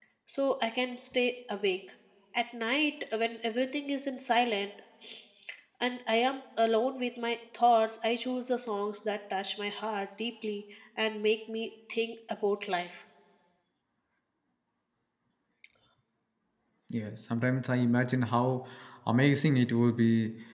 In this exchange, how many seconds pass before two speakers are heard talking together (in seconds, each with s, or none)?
none